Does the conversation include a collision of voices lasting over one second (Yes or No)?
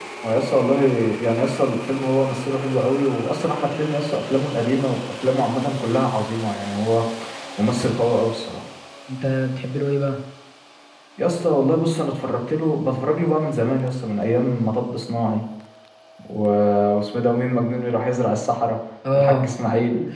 No